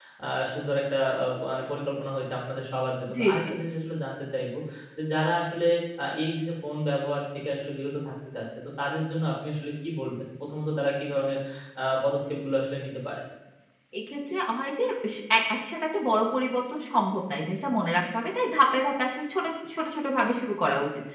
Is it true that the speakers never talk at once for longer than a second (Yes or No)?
Yes